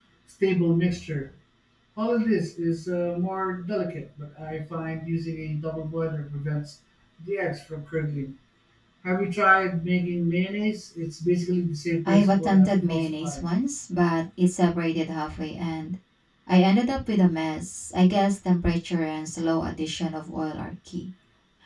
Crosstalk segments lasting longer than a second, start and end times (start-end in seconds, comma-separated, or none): 12.0-13.5